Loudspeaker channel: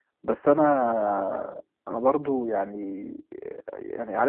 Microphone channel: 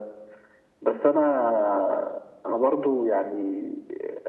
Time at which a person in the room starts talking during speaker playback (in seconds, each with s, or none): none